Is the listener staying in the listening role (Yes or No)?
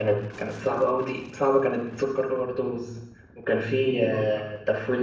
Yes